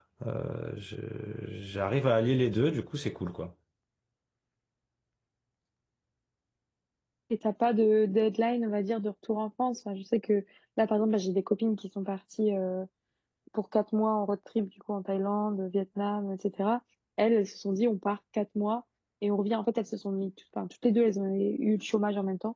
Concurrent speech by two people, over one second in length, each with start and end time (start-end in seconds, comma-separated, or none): none